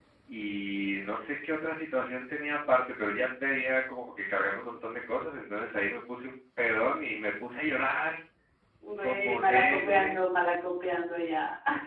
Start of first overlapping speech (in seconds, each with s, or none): 9.0 s